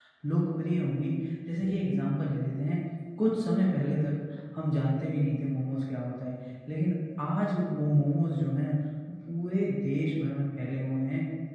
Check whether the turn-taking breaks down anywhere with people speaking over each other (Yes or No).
No